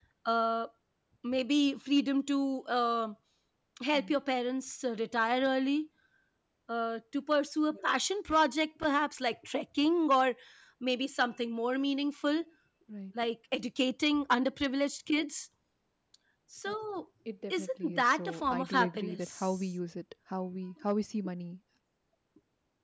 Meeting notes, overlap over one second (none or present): present